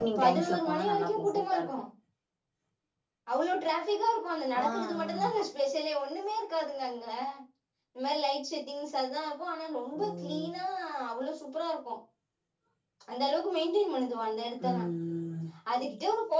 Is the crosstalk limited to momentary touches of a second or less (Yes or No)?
No